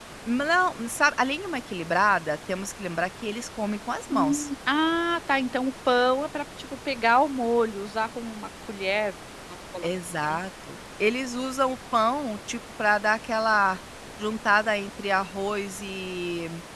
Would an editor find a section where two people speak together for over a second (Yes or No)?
No